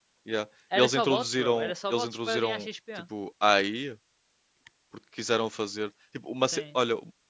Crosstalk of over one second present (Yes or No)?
Yes